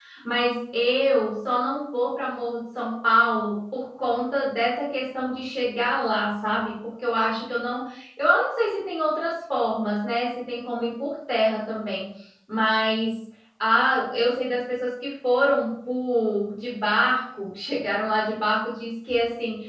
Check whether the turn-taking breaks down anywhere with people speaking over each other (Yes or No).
No